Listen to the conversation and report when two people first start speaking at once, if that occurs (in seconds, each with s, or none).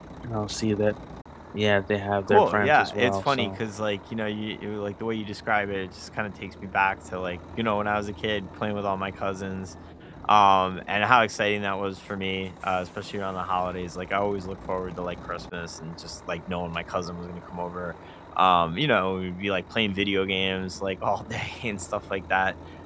2.3 s